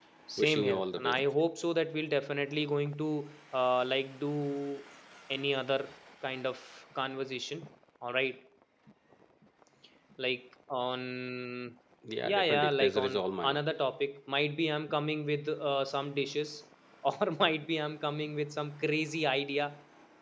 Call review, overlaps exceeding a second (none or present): present